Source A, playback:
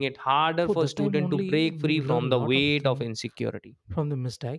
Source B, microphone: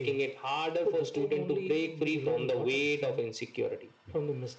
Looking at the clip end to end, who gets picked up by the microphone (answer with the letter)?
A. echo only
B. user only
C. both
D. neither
A